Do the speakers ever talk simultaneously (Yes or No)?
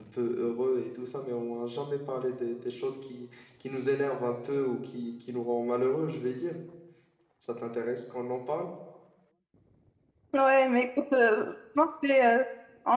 No